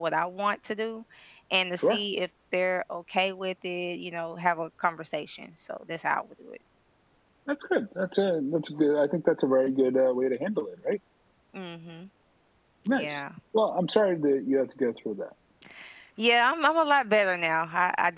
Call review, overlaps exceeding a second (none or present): none